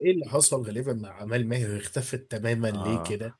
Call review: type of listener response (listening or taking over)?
taking over